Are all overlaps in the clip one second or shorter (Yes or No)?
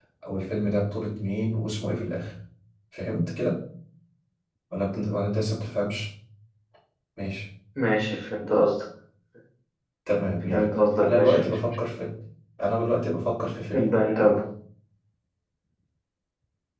No